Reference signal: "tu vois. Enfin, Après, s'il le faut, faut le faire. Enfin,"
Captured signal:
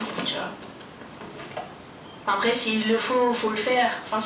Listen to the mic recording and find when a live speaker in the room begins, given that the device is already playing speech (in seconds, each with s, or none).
none